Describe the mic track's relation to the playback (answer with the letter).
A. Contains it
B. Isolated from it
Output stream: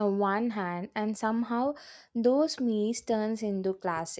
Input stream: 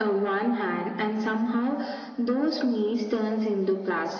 A